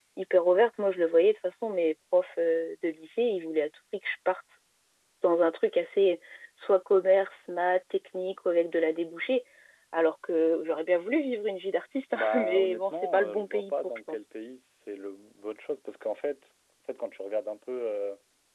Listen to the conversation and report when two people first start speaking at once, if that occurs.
12.1 s

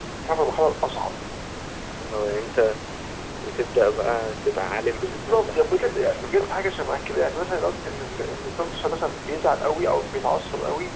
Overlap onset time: 4.9 s

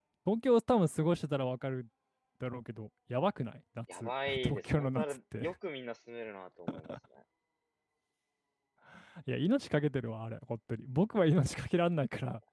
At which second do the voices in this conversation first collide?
3.9 s

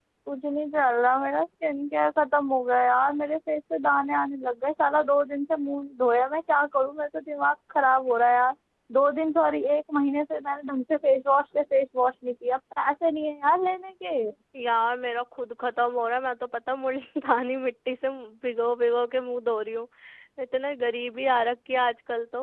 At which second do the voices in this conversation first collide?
none

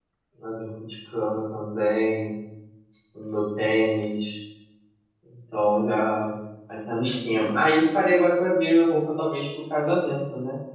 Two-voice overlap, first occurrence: none

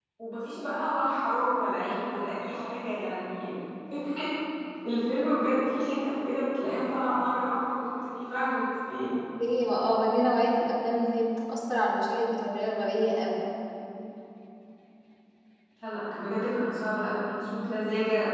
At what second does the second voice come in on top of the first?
none

